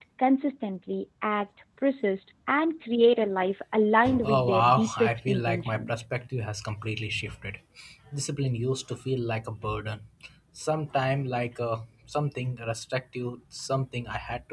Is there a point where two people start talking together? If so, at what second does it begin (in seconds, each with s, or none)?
4.0 s